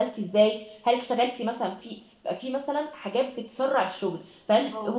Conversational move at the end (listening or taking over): listening